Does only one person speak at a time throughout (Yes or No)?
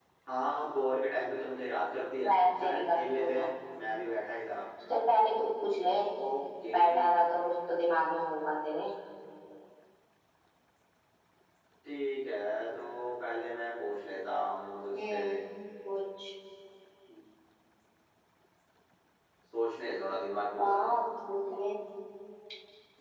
No